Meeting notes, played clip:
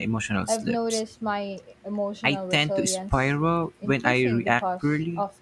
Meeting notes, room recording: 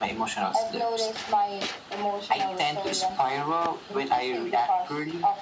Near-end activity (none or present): none